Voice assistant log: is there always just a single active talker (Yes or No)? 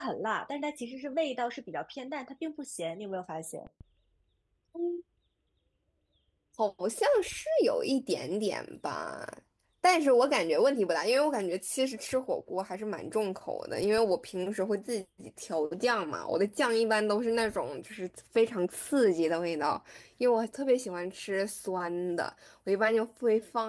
Yes